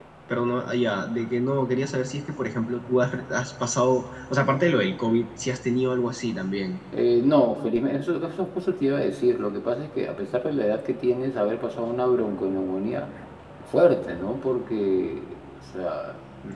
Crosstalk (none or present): none